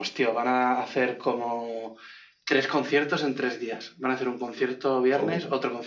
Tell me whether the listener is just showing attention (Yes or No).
Yes